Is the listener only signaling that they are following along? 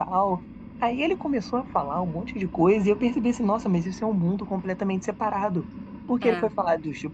Yes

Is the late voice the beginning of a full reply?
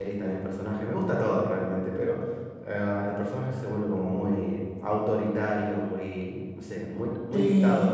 Yes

